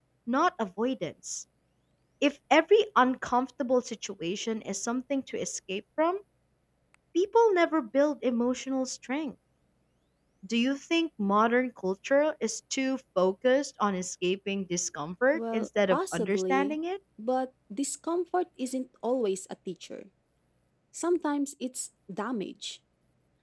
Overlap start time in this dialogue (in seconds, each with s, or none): 15.3 s